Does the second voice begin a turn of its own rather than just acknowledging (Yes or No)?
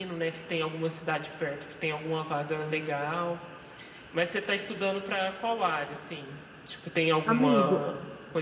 No